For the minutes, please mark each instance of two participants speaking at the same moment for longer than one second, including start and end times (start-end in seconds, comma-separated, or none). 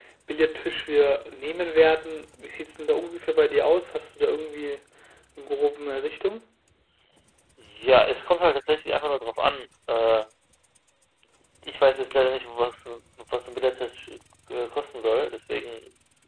none